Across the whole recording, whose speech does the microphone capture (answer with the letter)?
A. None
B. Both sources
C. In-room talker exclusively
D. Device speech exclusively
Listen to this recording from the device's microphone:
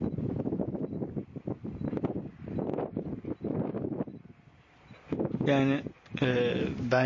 C